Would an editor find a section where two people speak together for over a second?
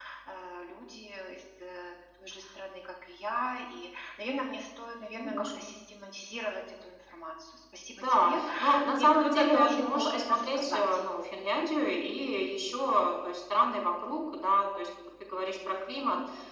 Yes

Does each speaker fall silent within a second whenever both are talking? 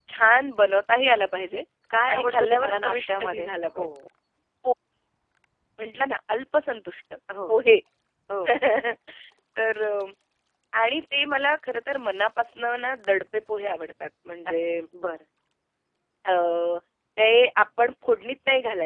No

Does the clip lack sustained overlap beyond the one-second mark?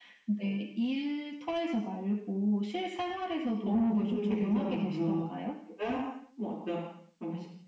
No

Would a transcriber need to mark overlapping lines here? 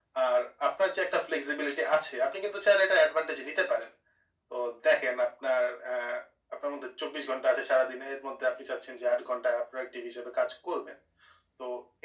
No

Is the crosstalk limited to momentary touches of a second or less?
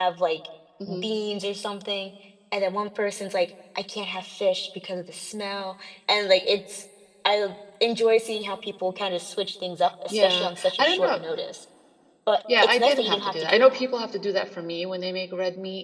No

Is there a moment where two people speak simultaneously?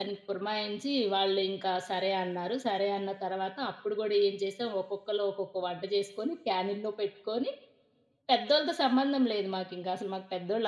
No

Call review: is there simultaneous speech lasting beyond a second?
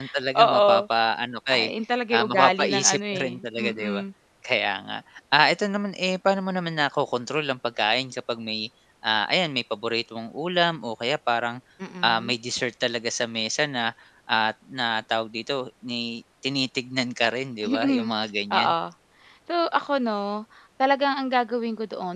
Yes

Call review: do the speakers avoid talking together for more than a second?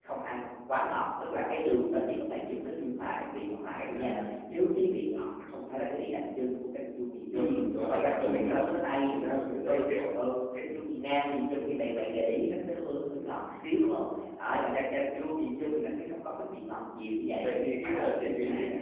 No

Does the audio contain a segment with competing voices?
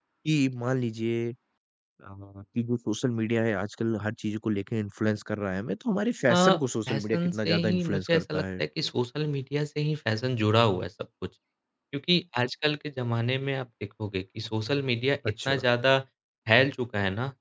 Yes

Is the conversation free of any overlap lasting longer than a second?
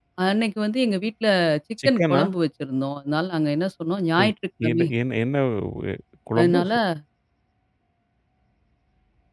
Yes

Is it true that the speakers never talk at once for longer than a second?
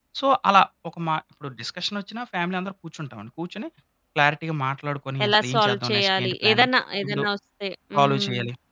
No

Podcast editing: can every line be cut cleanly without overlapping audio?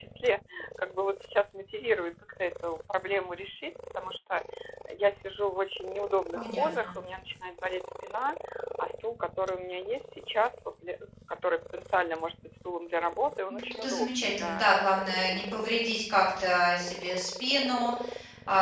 No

